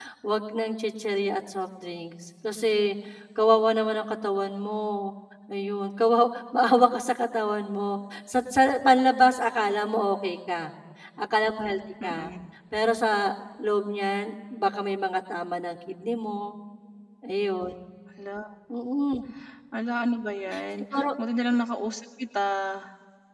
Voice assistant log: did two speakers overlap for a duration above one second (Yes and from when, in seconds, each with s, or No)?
No